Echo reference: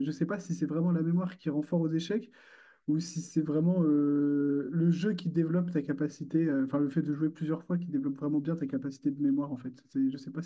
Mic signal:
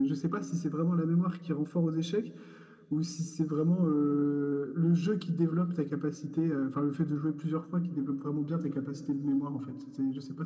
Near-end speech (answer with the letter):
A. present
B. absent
B